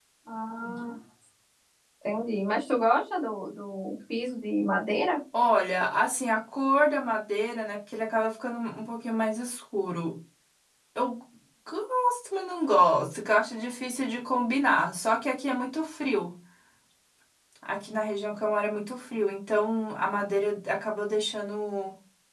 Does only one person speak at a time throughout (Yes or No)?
Yes